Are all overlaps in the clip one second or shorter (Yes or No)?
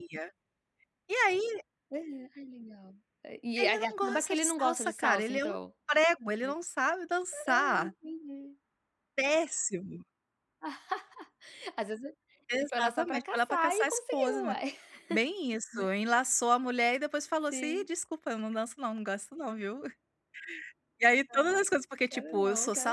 No